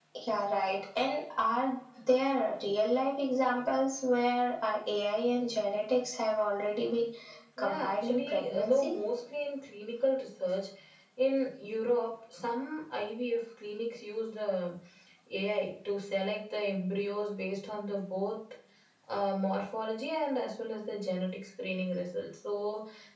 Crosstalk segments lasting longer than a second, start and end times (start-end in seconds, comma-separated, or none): 7.6-8.9